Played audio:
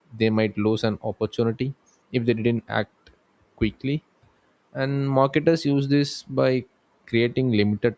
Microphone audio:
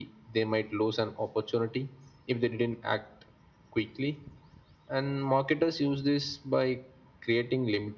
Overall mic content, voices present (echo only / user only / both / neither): echo only